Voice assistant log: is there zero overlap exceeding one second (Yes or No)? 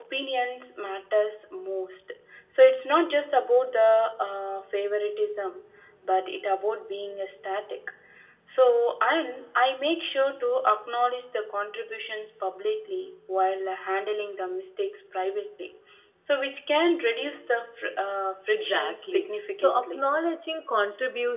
No